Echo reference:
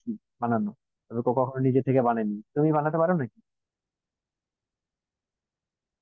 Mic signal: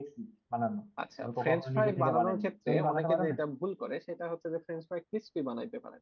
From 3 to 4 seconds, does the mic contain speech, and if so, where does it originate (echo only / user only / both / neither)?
both